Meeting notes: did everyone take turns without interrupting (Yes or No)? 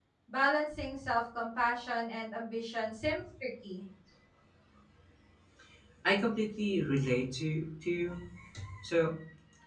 Yes